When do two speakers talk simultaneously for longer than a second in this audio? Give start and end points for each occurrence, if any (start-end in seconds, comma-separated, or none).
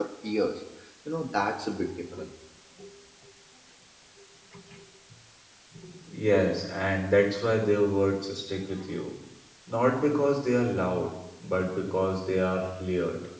none